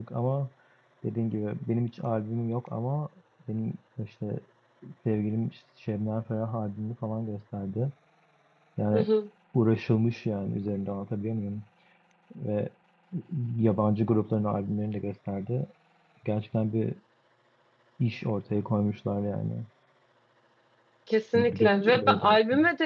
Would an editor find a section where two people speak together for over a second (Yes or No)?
Yes